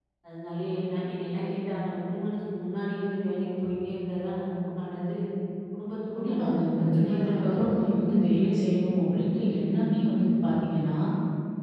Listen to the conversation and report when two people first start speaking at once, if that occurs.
6.1 s

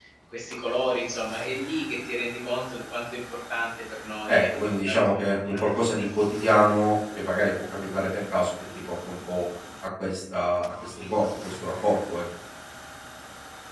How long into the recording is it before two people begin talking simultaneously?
4.3 s

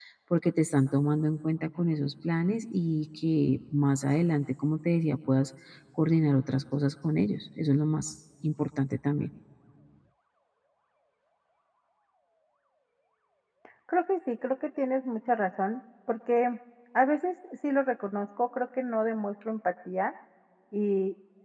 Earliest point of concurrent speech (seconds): none

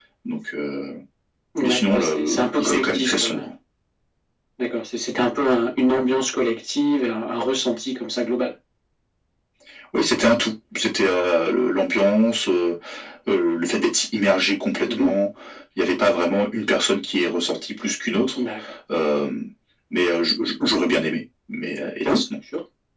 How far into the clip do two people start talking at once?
1.6 s

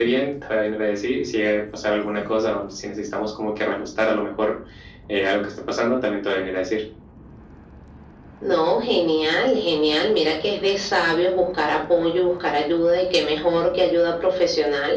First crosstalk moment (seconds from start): none

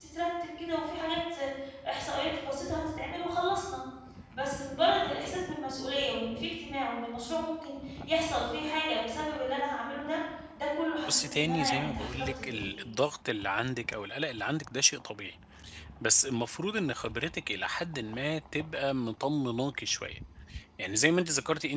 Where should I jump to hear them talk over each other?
11.1 s

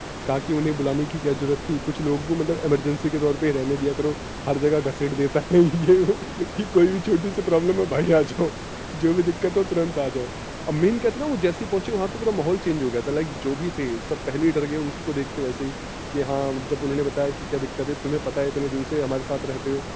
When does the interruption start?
none

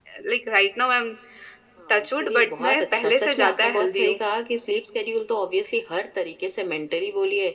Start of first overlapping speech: 1.9 s

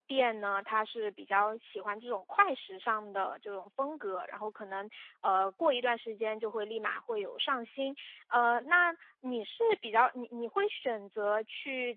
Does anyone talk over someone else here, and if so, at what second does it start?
none

